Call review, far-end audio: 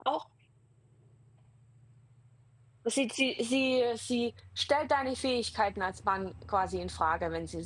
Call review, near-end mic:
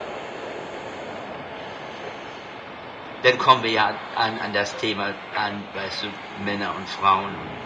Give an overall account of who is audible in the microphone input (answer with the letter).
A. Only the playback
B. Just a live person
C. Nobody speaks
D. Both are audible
B